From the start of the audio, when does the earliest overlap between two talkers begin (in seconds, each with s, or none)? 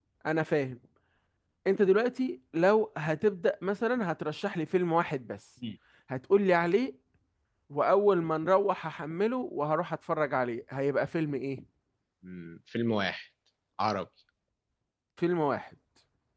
none